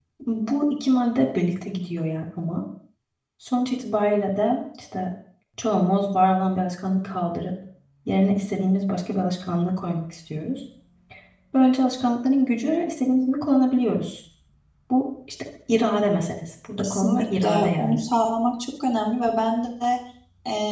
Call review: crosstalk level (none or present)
present